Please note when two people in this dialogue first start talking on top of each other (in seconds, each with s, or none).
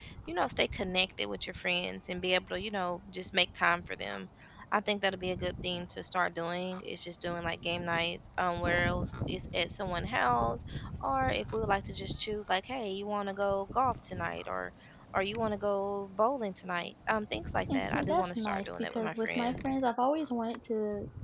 17.7 s